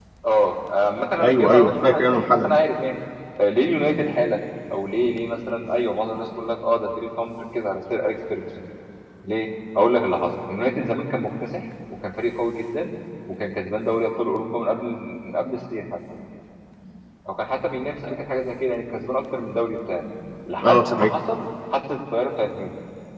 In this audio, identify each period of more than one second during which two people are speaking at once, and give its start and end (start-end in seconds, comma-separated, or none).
1.2-2.6